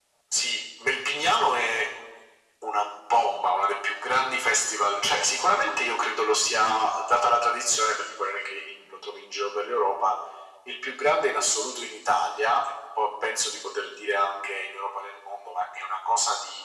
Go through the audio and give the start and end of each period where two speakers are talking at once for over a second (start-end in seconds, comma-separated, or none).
none